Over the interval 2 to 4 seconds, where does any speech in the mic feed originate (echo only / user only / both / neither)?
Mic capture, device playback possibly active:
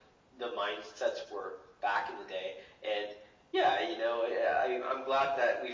echo only